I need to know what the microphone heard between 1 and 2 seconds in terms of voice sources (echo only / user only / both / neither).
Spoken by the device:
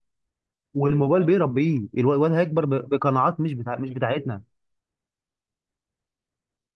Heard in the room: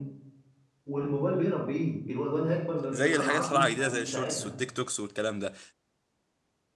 echo only